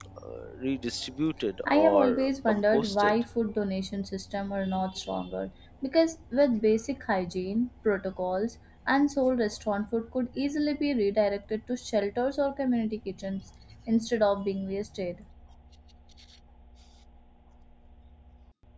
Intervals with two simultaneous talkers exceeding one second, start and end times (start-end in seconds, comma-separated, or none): 1.6-3.1